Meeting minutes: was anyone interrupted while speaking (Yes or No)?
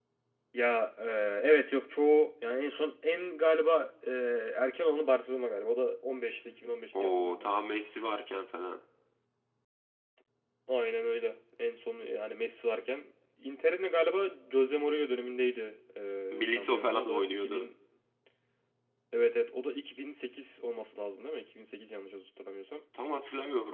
Yes